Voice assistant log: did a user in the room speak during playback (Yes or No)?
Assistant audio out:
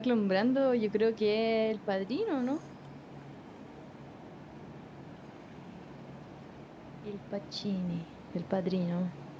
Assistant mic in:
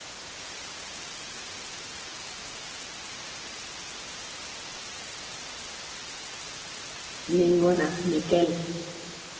Yes